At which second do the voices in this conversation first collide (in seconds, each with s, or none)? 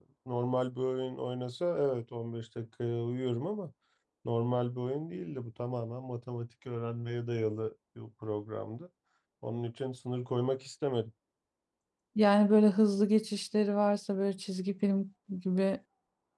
none